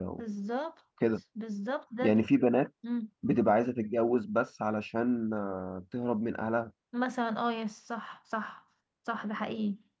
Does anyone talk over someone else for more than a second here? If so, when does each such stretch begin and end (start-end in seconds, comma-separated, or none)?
none